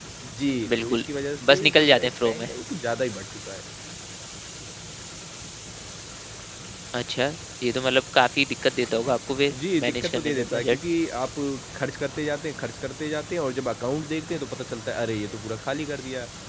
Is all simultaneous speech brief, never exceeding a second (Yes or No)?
No